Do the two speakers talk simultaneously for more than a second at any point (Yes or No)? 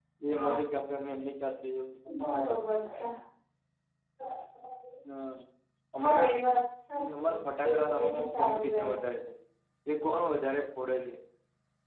Yes